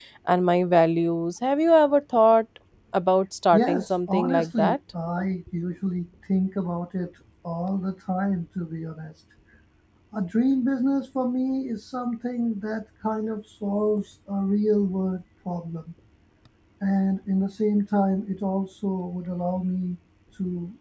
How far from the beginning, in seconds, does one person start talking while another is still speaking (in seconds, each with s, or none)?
3.5 s